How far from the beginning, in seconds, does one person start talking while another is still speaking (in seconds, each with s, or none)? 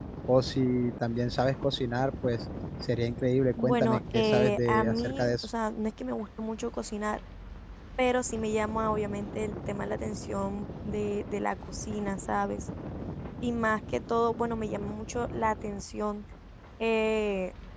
3.6 s